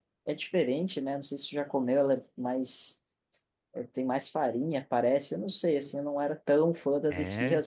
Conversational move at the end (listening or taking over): listening